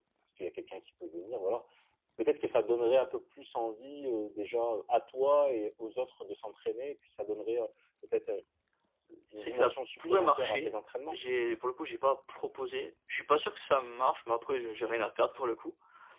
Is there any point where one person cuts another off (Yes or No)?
Yes